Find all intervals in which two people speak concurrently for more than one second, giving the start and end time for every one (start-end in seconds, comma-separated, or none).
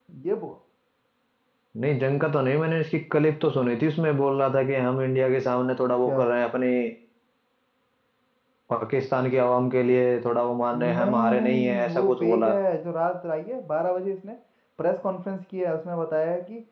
10.7-12.5